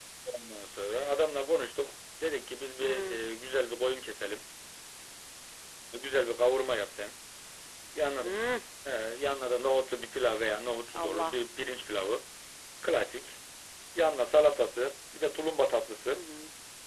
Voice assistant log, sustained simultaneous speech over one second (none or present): none